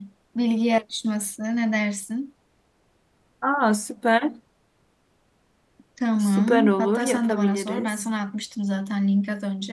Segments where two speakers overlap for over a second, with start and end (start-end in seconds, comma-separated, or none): 6.2-8.0